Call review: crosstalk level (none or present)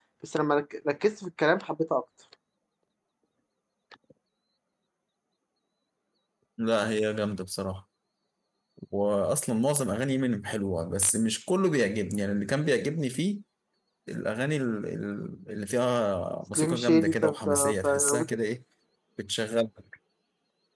present